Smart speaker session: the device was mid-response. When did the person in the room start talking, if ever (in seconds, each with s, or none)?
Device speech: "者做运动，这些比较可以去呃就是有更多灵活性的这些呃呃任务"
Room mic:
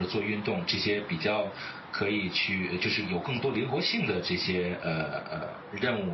none